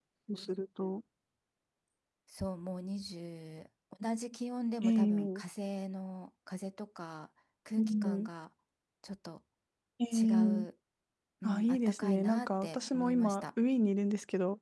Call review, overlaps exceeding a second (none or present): present